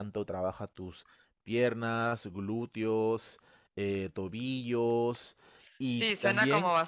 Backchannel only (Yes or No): No